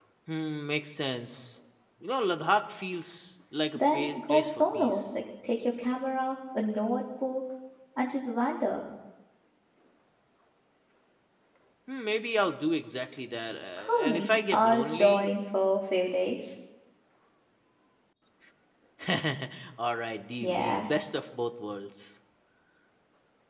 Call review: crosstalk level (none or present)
present